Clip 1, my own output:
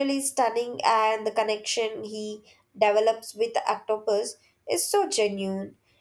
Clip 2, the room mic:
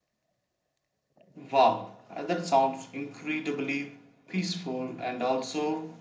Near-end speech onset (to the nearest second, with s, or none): 1 s